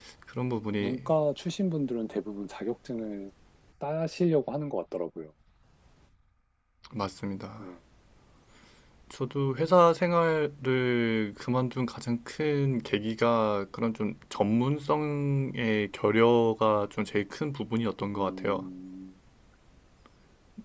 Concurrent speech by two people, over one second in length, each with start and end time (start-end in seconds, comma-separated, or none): none